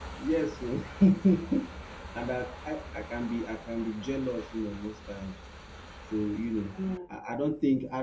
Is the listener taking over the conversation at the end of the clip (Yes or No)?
No